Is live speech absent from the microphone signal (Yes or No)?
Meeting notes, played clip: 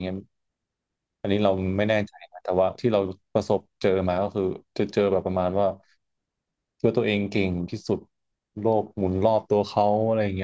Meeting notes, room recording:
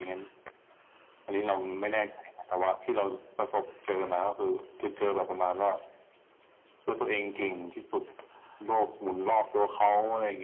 Yes